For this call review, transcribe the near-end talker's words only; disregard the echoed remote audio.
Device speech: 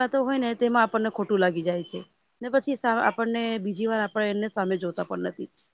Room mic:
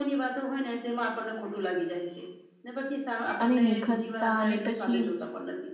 અને નિખસતા અને પછી

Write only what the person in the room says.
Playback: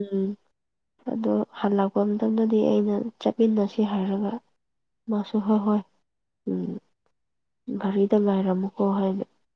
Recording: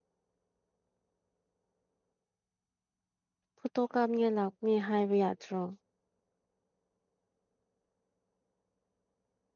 ꯐꯨꯇꯣ ꯀꯥꯞꯅꯤꯉꯥꯏ ꯂꯥꯛꯅꯤ ꯍꯥꯏꯕ ꯌꯥꯗ꯭ꯔꯣ

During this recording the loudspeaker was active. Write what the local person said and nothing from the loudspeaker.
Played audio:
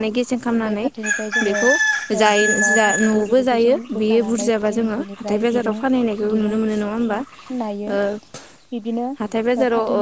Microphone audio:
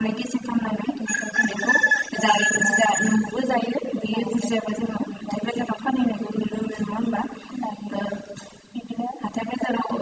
none

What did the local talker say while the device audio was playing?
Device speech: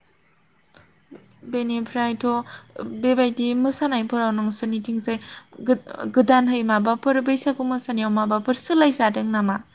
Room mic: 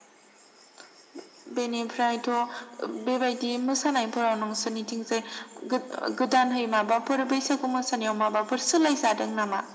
none

